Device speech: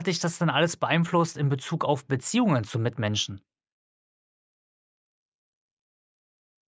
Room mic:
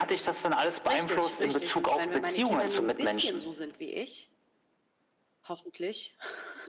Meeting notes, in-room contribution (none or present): present